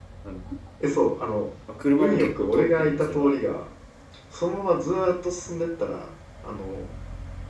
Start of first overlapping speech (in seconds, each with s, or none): 2.0 s